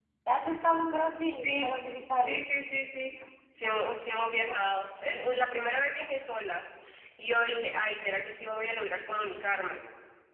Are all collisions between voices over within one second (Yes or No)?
Yes